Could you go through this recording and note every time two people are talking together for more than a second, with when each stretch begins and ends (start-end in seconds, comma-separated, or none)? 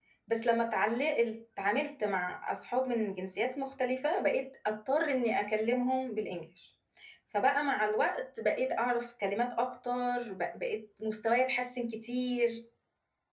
none